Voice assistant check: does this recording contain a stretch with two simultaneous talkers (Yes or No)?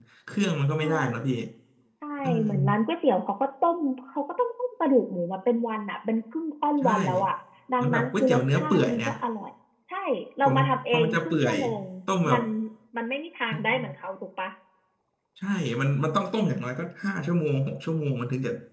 Yes